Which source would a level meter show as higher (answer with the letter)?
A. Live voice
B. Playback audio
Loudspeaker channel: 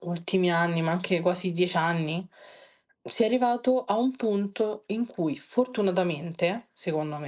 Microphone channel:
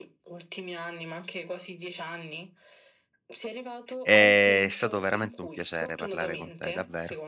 A